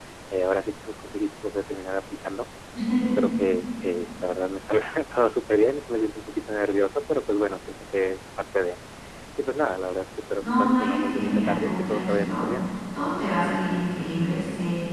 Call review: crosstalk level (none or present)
present